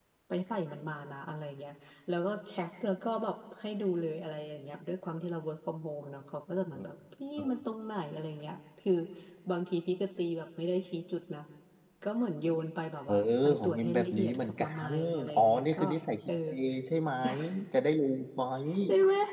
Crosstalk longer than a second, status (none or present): present